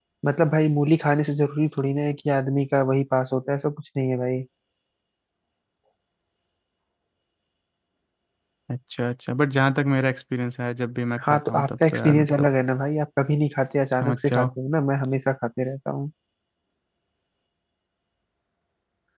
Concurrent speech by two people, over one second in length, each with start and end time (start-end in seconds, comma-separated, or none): 11.3-12.5